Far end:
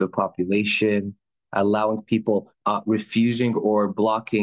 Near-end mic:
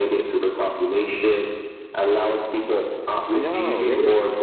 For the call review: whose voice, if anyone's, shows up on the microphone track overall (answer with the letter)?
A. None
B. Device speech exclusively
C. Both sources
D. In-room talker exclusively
C